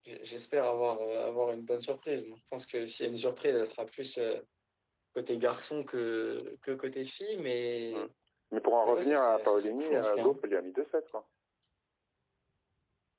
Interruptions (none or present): present